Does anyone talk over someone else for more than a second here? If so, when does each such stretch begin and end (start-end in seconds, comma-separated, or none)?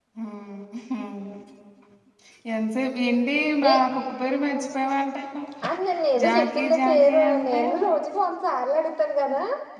6.2-7.6